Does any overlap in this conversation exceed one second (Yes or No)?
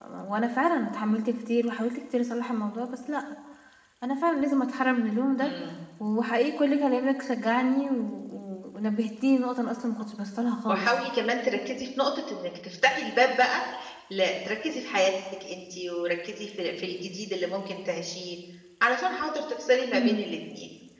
No